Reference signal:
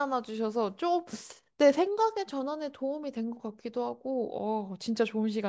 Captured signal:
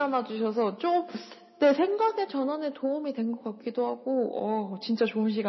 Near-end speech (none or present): none